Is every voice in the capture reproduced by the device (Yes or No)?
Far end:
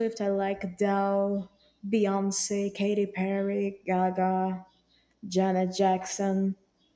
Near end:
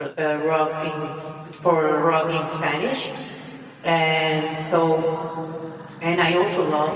No